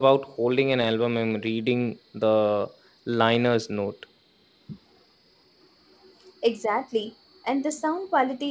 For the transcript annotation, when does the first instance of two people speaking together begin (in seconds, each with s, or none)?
none